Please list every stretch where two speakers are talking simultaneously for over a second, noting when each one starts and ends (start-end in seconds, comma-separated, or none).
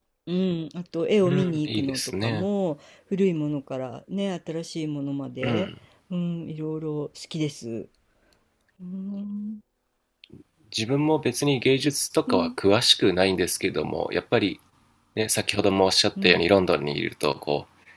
1.2-2.5